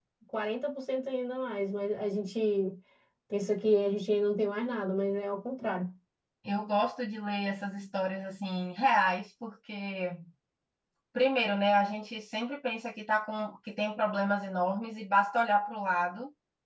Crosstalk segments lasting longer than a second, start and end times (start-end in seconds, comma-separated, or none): none